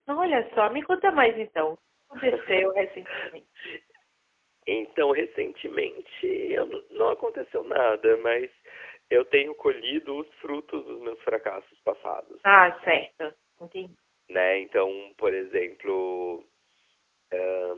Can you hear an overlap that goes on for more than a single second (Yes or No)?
No